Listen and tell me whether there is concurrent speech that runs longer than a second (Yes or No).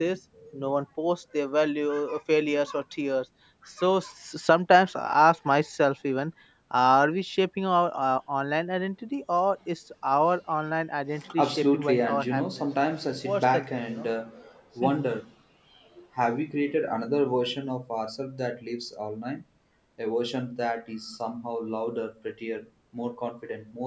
Yes